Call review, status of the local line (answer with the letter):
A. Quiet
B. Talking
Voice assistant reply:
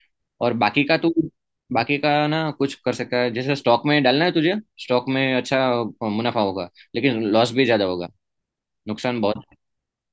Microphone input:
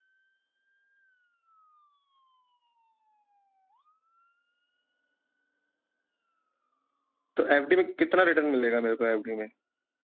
B